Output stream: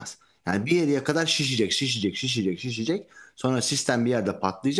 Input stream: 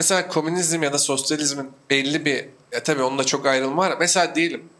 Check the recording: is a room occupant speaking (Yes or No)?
Yes